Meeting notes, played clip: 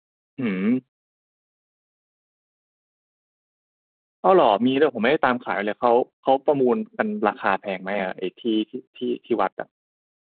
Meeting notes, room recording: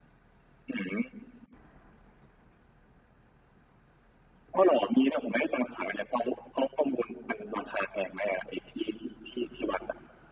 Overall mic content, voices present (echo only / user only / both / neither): echo only